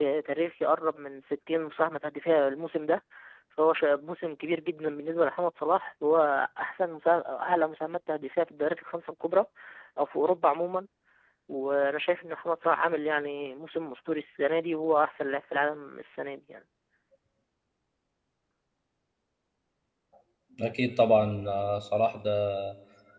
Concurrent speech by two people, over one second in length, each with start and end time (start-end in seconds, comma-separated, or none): none